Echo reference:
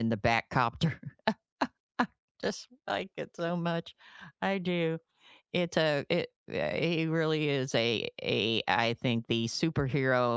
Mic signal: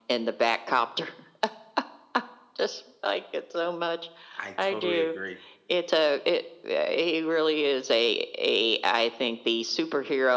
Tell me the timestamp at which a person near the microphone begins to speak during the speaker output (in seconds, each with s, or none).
4.4 s